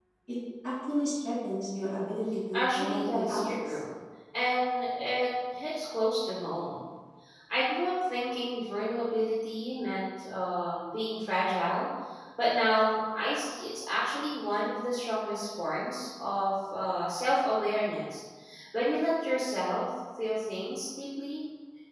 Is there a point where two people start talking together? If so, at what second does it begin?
2.5 s

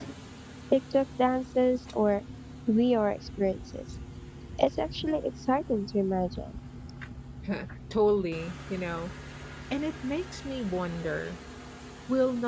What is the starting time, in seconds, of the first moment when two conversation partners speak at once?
none

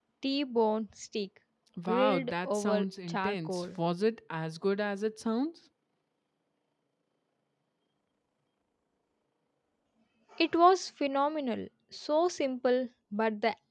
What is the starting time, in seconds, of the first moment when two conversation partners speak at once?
1.9 s

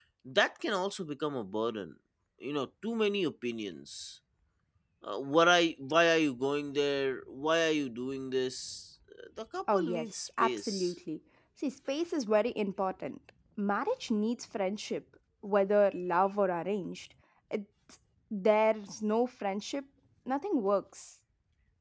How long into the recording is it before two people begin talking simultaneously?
9.7 s

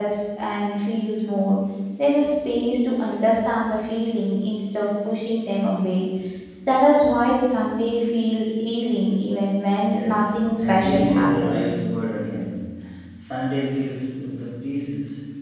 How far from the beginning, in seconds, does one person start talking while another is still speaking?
9.8 s

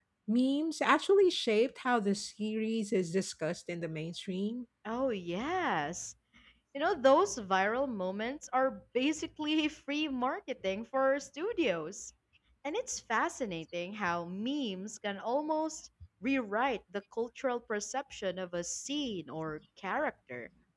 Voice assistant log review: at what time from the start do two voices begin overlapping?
none

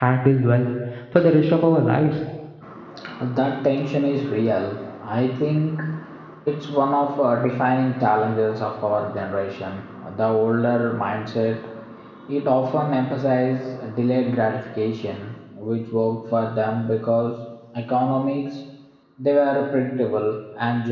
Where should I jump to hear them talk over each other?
none

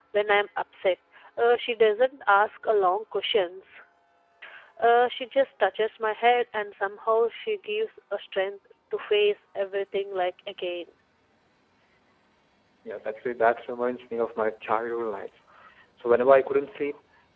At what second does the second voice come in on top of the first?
none

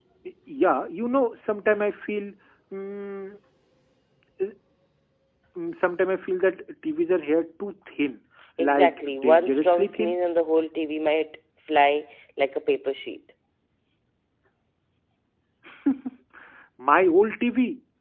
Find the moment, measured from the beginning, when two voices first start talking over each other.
8.6 s

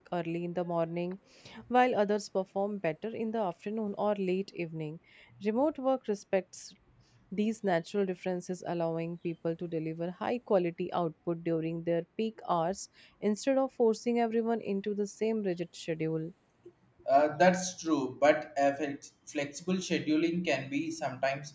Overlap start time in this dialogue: none

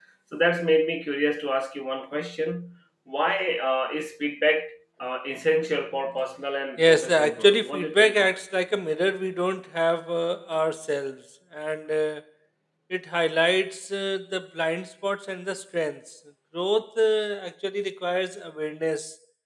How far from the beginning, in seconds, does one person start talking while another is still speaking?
6.8 s

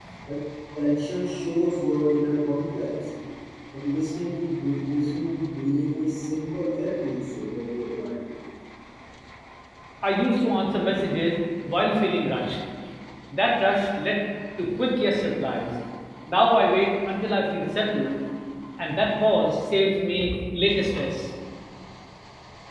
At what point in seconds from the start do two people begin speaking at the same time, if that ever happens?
none

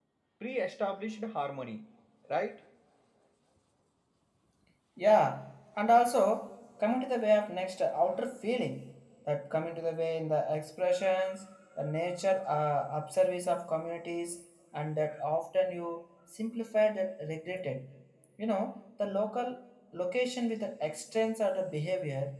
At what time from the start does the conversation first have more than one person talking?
none

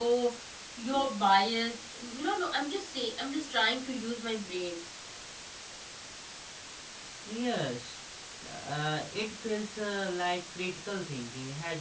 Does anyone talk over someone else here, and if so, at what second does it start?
none

